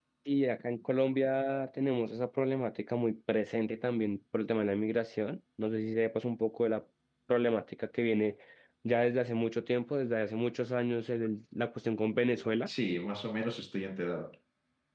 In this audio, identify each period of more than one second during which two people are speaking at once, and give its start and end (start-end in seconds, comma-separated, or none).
none